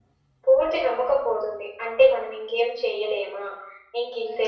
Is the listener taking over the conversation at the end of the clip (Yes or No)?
Yes